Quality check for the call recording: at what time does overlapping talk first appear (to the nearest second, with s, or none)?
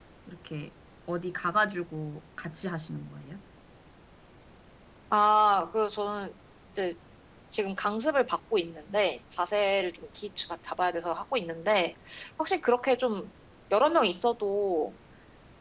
none